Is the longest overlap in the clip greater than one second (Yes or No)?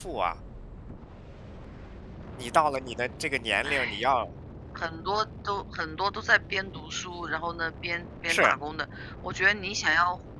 No